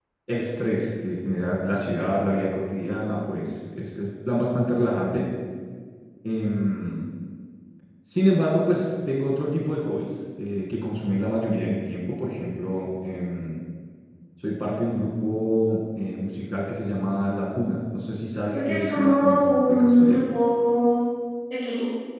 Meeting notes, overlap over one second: present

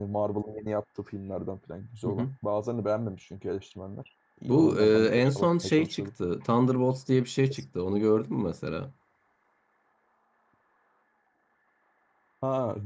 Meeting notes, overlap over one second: present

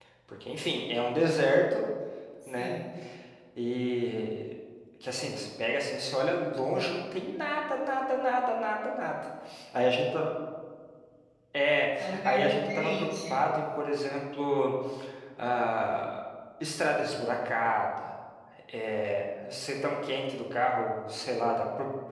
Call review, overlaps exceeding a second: present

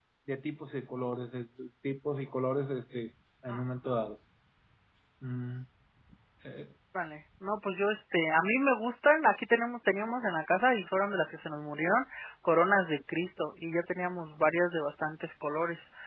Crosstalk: none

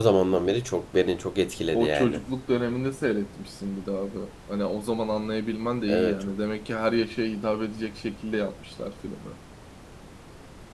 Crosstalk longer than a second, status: none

